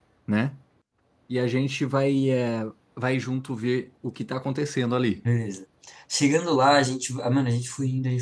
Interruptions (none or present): none